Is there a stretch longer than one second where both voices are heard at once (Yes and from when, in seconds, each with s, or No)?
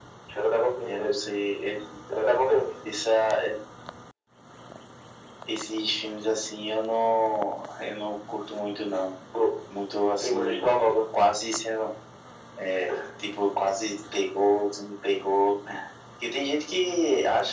No